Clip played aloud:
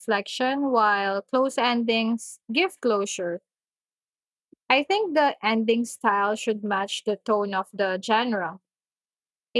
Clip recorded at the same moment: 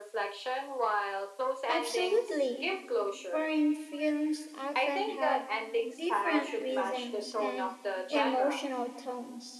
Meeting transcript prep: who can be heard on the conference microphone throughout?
both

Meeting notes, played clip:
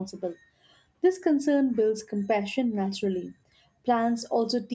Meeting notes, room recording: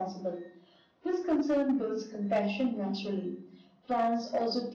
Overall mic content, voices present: echo only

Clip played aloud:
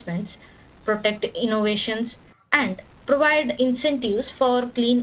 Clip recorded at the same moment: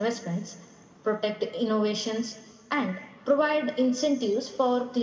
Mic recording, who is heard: echo only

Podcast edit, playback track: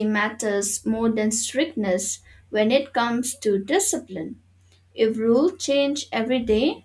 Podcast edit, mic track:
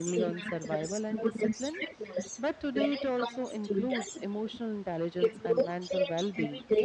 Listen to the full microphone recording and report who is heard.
both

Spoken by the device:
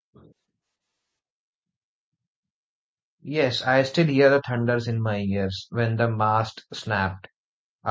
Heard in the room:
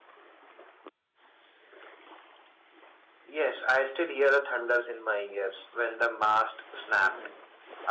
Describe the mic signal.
both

